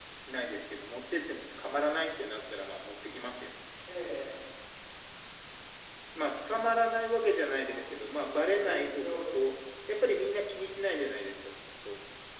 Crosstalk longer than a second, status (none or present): present